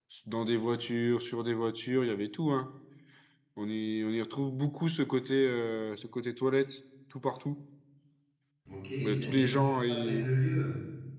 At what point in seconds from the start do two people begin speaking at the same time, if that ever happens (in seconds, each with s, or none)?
9.0 s